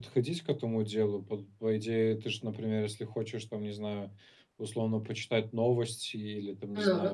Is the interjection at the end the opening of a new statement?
No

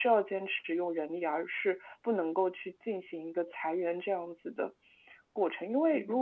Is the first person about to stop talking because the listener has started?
No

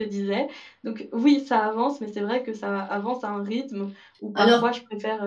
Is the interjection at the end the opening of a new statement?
No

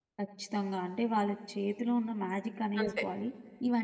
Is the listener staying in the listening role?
Yes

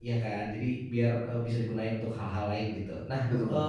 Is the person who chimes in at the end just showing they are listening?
Yes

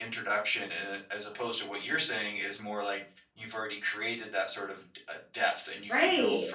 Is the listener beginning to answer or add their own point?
Yes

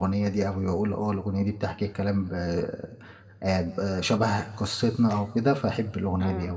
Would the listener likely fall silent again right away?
No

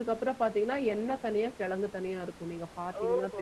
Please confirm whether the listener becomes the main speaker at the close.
Yes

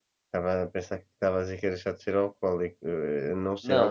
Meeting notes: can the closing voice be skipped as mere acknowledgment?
No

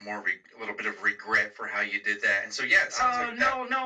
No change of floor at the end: No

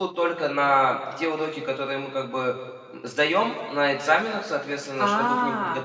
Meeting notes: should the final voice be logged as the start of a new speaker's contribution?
No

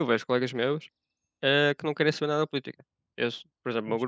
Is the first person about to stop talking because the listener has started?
No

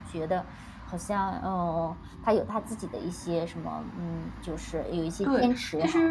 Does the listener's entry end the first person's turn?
Yes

